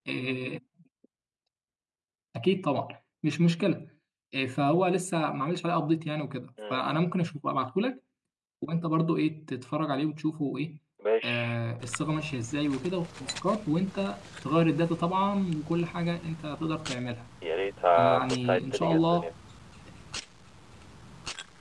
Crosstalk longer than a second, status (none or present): present